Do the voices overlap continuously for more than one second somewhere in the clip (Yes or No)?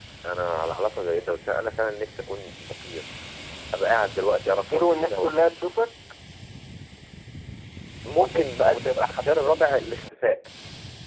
Yes